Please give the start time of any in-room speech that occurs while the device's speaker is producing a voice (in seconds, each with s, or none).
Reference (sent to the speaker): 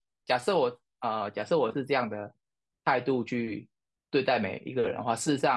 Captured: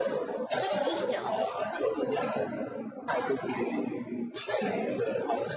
0.6 s